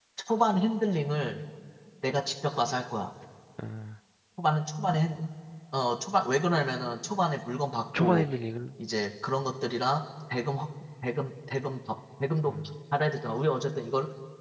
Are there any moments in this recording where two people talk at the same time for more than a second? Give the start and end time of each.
none

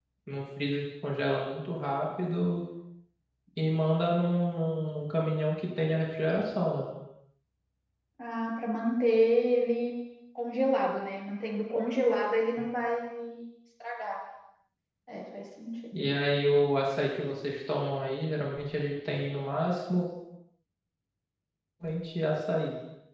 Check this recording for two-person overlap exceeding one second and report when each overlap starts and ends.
none

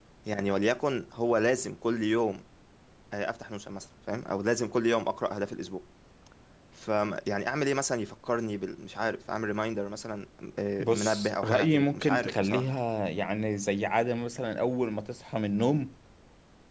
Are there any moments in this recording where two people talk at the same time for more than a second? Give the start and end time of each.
10.8-12.7

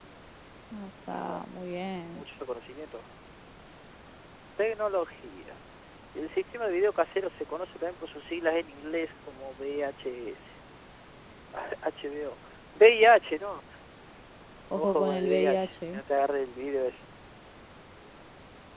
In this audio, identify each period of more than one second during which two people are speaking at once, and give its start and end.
14.7-16.0

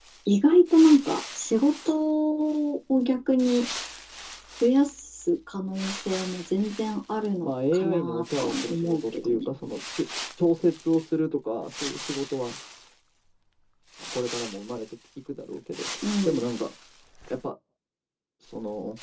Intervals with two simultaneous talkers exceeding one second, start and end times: 7.4-9.5

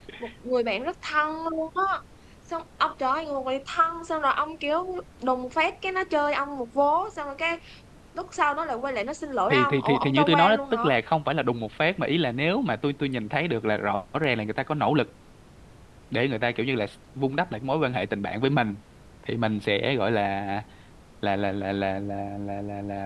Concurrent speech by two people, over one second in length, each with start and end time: 9.5-10.9

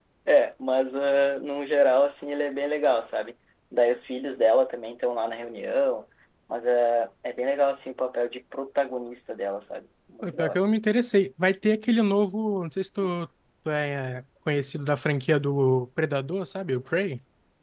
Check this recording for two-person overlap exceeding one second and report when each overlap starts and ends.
none

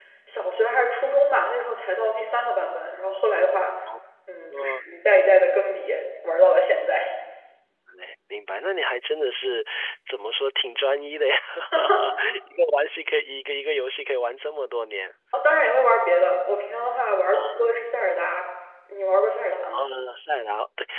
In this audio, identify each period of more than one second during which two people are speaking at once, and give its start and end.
none

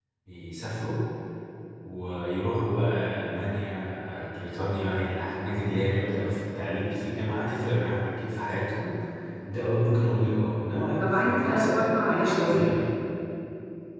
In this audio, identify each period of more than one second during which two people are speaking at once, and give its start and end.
11.0-12.8

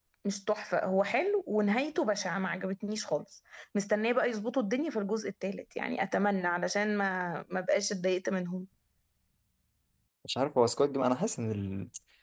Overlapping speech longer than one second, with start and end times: none

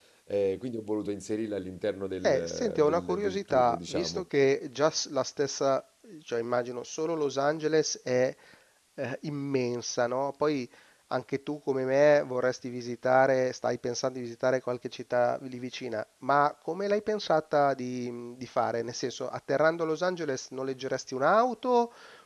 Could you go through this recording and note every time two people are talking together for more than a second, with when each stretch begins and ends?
2.2-4.2

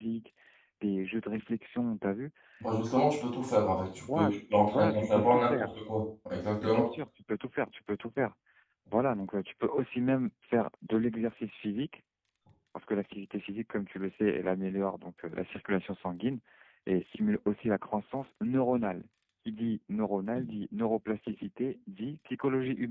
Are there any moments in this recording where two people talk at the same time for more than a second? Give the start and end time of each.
4.1-5.7

